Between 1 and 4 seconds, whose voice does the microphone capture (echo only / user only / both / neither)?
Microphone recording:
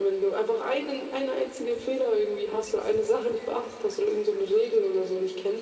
echo only